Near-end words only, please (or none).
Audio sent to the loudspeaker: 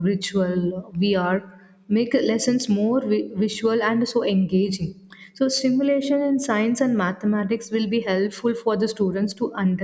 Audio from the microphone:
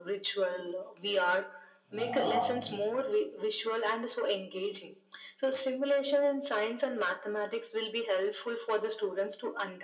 uh,